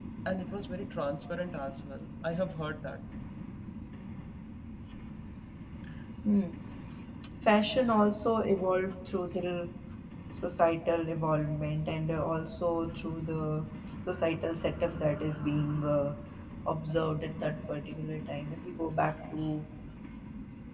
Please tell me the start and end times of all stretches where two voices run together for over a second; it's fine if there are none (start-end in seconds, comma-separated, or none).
none